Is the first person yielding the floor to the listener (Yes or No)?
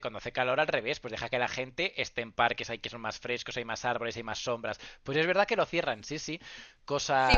Yes